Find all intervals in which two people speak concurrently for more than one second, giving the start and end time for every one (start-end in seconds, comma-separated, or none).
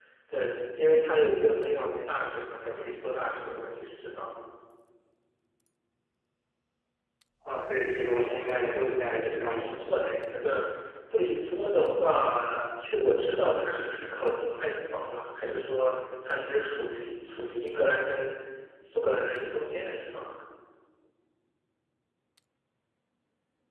8.4-9.8